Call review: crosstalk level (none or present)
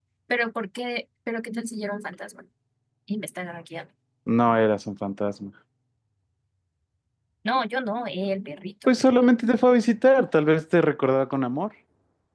none